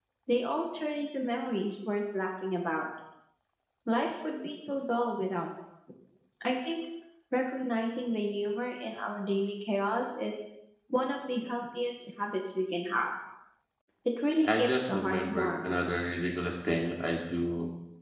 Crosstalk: present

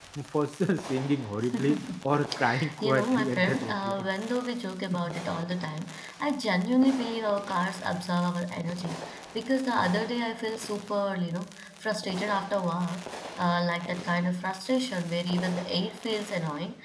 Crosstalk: present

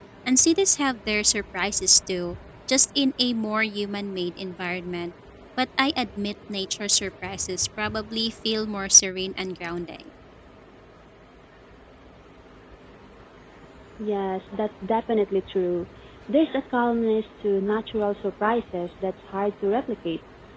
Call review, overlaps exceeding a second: none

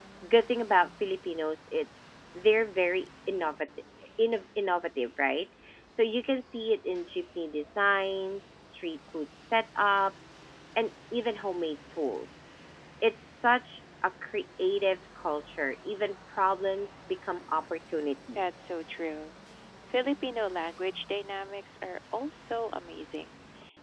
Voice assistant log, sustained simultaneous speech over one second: none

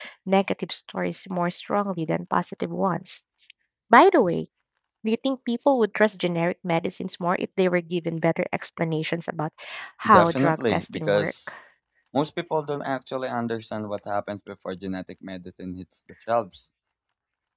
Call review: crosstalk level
present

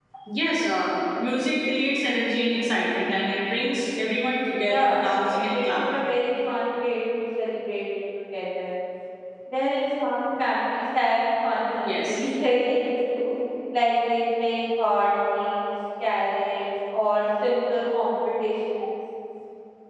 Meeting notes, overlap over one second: present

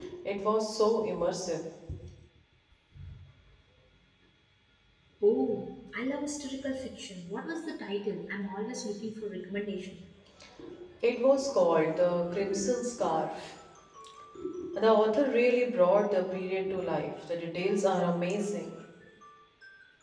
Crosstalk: none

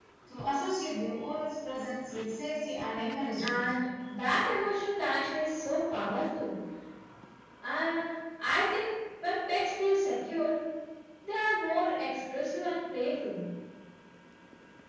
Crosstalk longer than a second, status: none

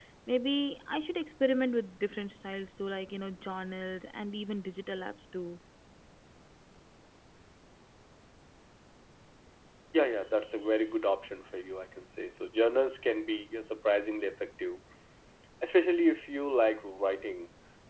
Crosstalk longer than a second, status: none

